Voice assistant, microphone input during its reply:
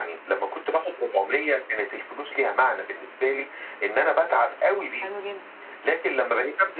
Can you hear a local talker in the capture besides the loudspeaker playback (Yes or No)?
Yes